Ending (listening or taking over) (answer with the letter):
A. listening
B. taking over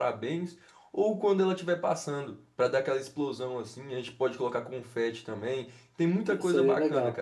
B